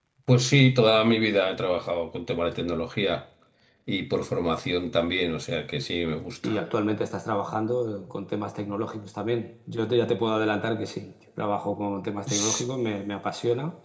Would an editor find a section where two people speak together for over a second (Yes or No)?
No